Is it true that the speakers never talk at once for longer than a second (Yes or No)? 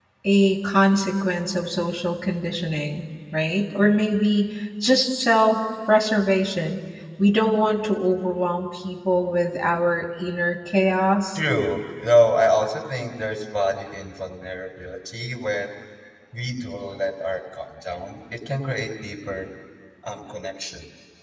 Yes